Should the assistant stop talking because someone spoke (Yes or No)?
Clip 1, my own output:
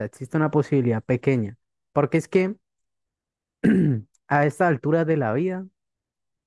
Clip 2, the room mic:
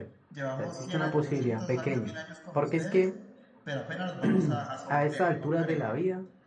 Yes